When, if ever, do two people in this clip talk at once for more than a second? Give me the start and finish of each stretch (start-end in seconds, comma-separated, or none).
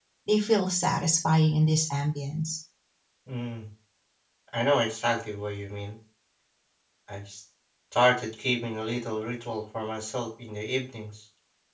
none